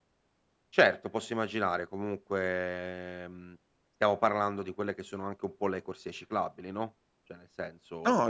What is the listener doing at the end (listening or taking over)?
taking over